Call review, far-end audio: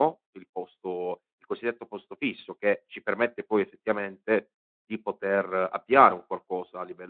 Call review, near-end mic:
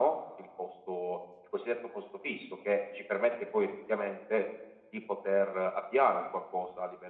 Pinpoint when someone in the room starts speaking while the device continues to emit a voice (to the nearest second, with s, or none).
none